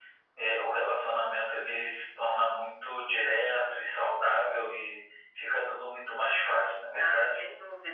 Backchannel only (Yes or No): No